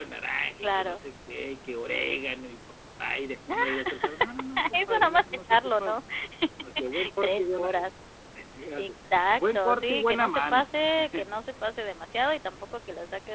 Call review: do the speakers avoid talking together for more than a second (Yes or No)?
No